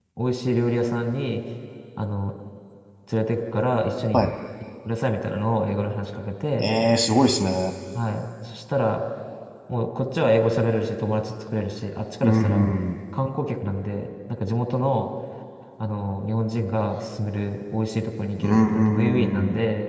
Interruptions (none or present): present